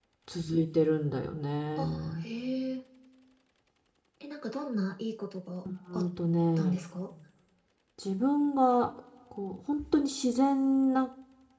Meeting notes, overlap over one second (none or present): none